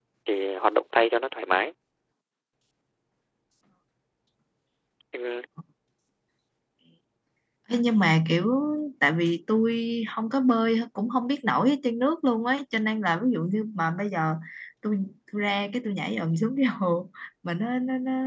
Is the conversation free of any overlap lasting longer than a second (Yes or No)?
Yes